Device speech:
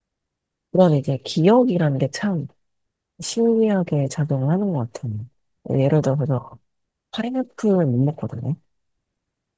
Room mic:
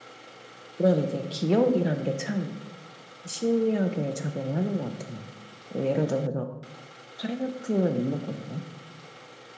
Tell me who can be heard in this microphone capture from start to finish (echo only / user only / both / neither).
echo only